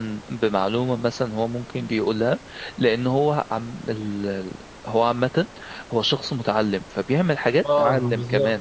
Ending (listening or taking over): taking over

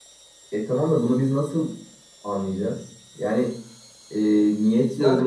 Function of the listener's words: taking over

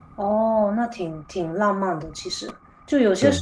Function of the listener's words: listening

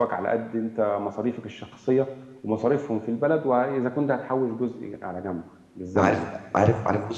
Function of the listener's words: taking over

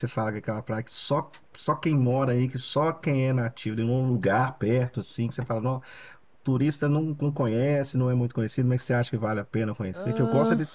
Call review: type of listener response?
listening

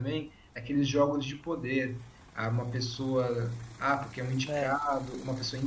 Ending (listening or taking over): listening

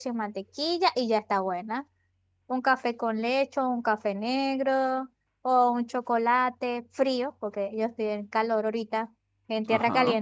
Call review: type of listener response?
listening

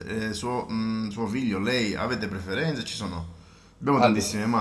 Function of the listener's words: listening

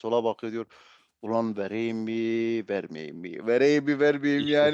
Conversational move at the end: listening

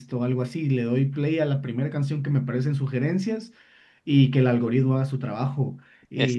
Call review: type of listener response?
listening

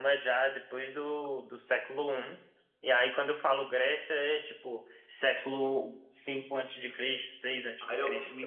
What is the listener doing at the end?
taking over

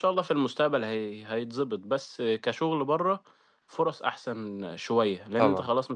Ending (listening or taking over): listening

